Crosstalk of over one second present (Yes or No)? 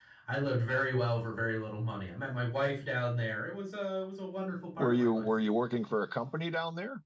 No